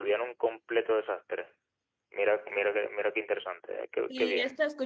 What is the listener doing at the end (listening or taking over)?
taking over